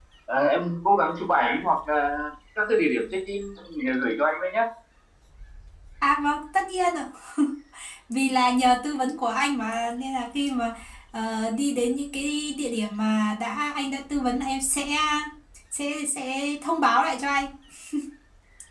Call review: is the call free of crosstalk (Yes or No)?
Yes